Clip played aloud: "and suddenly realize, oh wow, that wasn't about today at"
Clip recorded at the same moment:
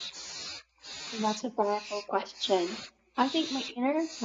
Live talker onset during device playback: 1.1 s

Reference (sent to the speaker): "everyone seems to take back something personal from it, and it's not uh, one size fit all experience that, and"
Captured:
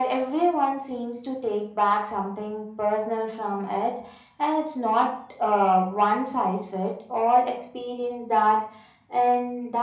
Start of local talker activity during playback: none

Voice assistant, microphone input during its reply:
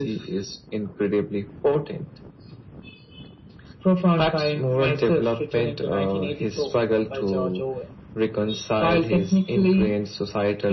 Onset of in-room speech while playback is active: none

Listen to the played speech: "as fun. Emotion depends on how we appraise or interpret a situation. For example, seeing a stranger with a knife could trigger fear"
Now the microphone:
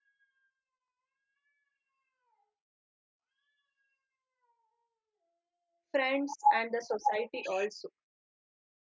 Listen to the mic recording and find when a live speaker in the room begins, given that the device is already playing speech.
5.9 s

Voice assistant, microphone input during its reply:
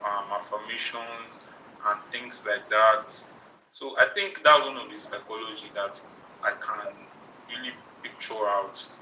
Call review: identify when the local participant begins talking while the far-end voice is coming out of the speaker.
none

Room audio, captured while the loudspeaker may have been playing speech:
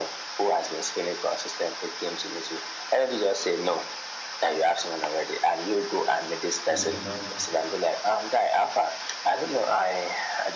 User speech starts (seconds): 6.7 s

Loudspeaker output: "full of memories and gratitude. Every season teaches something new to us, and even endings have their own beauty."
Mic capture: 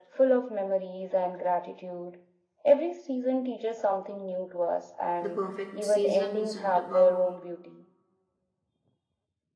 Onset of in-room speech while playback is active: 5.2 s

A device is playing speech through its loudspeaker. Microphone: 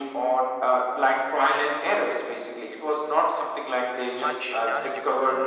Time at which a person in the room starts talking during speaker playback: 4.1 s

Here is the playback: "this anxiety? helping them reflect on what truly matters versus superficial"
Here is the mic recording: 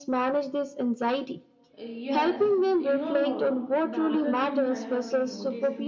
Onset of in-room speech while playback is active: 1.8 s

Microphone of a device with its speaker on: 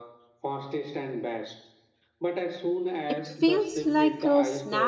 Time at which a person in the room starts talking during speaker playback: 3.1 s

